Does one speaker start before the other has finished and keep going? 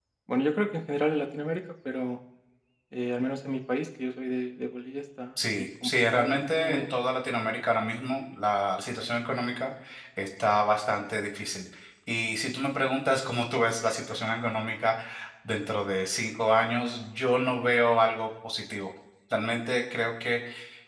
Yes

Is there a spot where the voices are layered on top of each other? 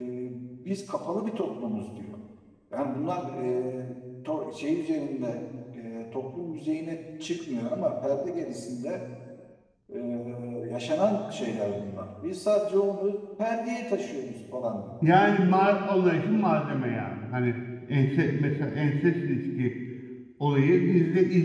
No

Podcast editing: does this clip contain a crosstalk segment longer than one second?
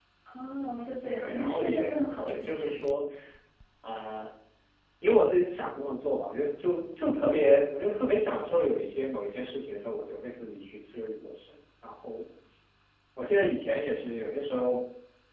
Yes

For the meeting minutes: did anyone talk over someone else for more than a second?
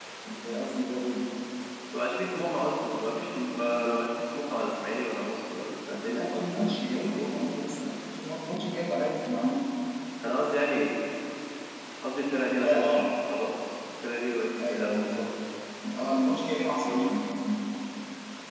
Yes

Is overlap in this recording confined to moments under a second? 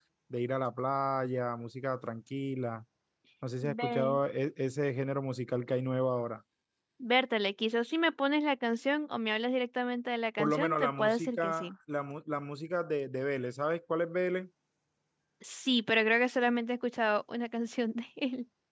No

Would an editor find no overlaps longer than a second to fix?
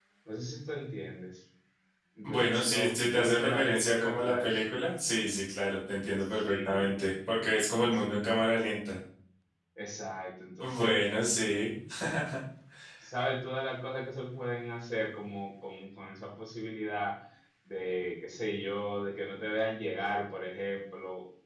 No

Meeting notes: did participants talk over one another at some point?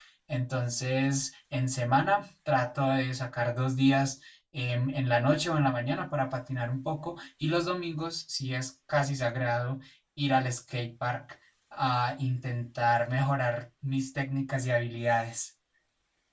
No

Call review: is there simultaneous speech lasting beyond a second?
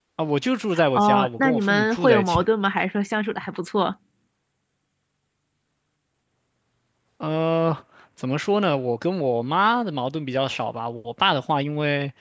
Yes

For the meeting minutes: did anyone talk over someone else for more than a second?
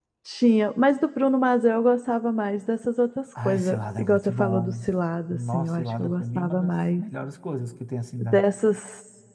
Yes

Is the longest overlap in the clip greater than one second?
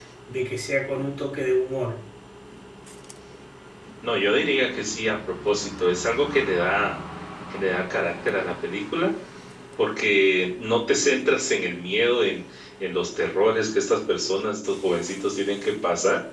No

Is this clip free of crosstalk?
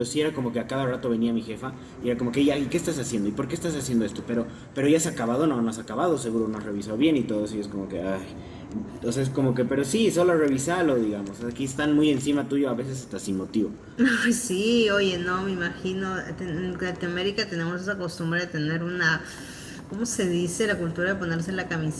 Yes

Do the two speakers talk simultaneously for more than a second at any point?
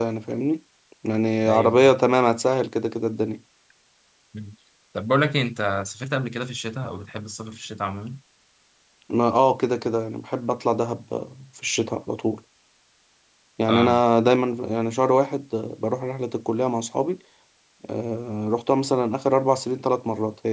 No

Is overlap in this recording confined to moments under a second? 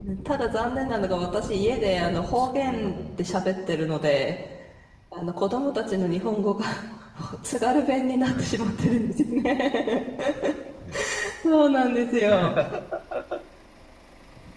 No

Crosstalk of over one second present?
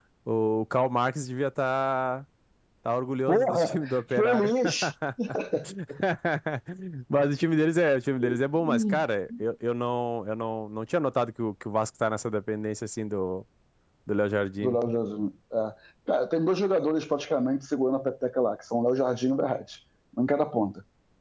Yes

